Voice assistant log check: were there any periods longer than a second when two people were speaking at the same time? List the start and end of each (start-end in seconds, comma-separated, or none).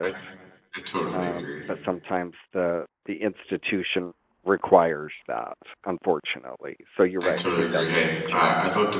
7.2-8.4